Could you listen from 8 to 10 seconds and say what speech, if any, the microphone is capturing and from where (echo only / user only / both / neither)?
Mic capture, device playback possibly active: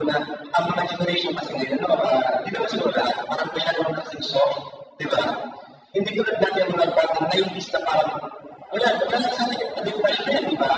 echo only